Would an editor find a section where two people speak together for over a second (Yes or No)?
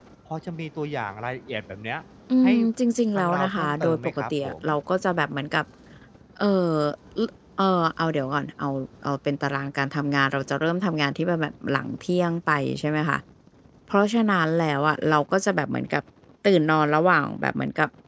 Yes